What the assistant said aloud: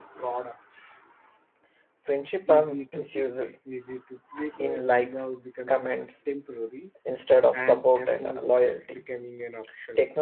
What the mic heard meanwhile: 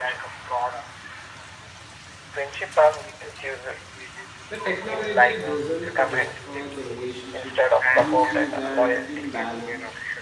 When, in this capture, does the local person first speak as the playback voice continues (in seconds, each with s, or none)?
4.5 s